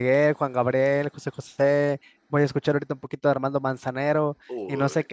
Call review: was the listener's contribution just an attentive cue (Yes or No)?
Yes